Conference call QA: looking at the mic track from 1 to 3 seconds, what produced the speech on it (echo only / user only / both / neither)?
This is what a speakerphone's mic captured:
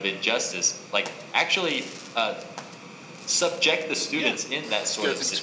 echo only